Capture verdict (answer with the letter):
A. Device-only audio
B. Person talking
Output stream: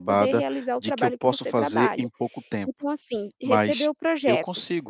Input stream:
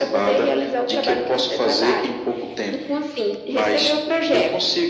A